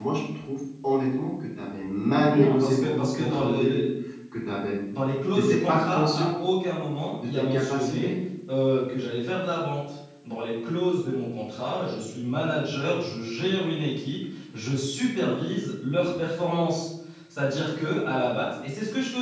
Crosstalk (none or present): present